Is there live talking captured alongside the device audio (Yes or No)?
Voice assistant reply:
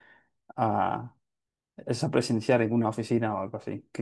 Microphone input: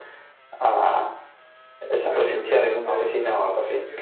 Yes